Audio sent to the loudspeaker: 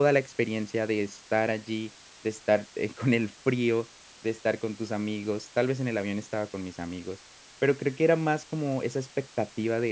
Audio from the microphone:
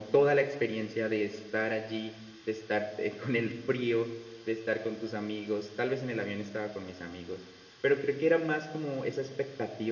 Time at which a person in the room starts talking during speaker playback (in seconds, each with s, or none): none